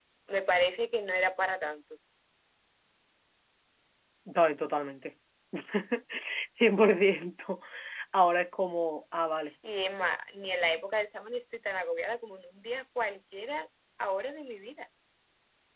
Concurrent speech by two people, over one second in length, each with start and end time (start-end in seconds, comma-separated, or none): none